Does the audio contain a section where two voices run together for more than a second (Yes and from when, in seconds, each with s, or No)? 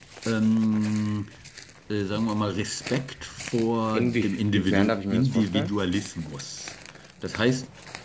Yes, from 3.9 s